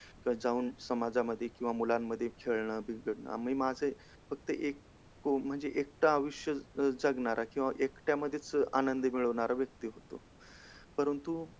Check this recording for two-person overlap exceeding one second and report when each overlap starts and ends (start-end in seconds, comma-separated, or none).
none